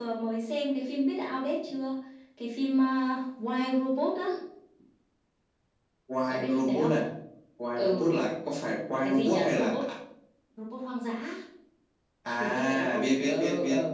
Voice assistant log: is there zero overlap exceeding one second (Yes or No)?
No